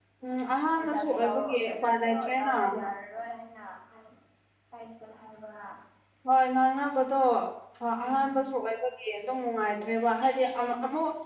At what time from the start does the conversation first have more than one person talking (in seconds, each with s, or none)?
0.8 s